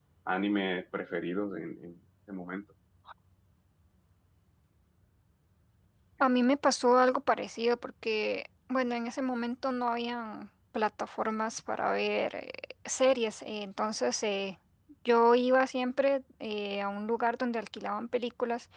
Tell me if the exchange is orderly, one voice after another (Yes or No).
Yes